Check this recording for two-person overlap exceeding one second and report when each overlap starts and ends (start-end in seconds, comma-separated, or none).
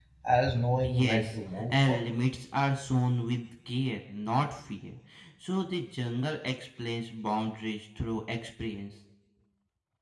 0.8-2.2